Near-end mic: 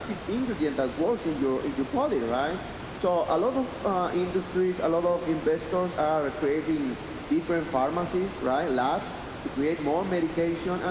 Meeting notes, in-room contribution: none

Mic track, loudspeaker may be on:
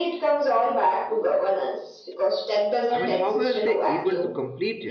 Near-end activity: present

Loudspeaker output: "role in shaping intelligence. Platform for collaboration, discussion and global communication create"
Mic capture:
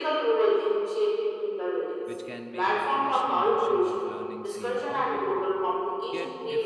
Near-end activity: present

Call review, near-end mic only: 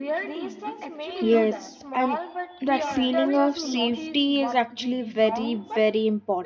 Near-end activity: present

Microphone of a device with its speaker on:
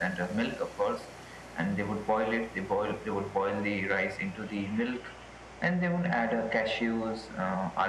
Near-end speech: none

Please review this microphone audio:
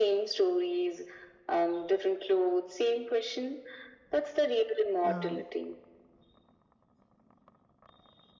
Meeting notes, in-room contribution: present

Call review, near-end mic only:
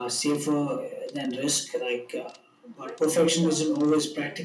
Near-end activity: present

